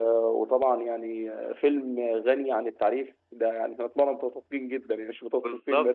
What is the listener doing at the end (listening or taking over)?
taking over